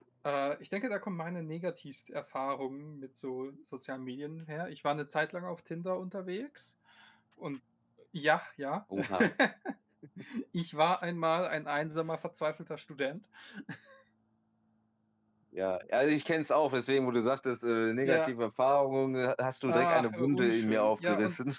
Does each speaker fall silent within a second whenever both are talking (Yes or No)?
No